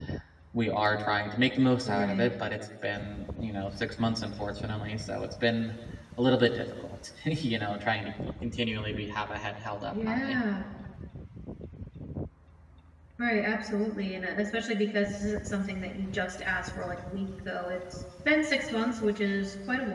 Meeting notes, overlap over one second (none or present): none